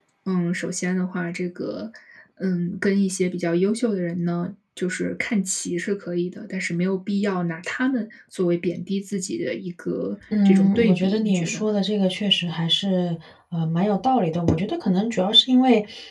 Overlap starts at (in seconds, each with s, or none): 10.3 s